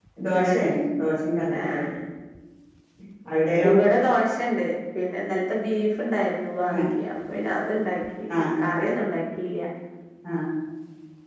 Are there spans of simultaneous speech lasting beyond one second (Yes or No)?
No